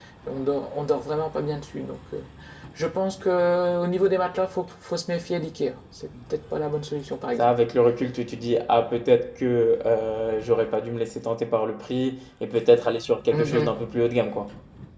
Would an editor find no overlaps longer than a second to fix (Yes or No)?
Yes